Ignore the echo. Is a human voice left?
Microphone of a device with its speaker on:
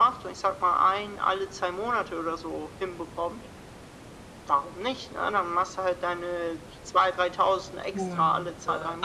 Yes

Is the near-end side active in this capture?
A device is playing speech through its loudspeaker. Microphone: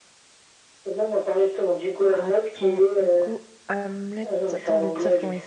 Yes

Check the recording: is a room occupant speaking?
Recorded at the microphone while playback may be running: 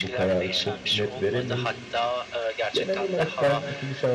Yes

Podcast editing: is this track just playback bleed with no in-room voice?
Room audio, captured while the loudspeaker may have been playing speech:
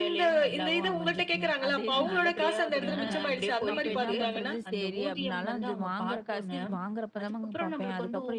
No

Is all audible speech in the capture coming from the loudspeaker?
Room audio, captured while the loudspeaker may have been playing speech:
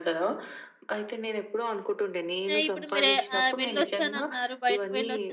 No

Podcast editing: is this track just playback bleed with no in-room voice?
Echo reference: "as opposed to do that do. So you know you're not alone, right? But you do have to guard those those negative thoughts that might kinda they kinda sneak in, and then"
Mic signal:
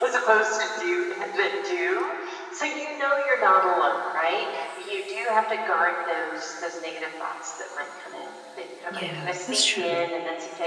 No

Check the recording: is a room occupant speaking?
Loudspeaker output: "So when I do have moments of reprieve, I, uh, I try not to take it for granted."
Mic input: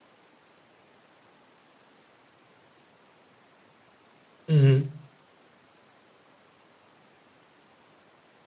Yes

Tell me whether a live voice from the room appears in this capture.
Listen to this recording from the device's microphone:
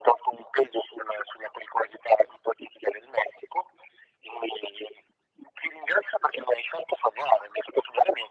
No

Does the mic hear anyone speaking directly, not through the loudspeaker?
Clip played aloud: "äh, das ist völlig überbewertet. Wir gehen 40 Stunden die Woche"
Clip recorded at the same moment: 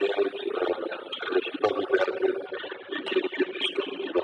No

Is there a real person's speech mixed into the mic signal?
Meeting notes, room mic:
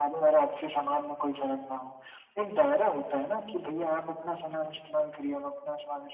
No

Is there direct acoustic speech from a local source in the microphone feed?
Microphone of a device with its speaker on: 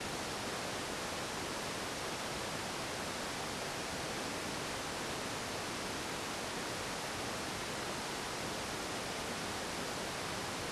No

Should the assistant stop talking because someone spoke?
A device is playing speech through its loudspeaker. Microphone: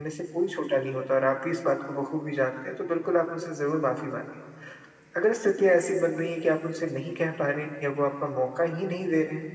Yes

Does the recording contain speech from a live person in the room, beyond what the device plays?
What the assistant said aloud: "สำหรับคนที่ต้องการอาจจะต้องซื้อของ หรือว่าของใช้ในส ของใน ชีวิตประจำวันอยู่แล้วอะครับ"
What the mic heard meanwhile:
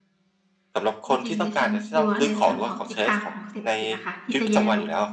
Yes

